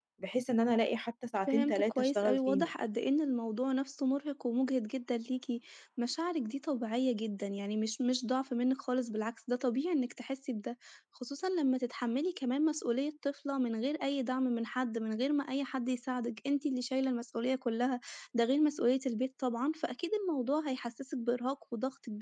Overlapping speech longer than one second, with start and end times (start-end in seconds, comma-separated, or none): 1.5-2.7